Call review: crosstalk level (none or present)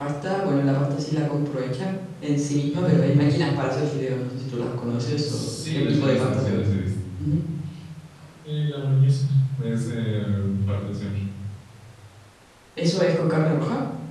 present